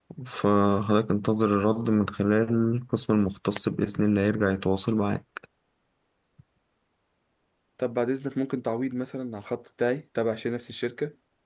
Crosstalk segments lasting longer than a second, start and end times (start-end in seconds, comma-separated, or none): none